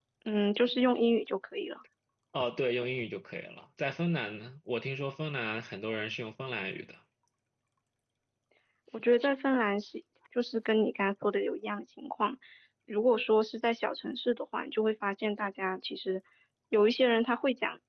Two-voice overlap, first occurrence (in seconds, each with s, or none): none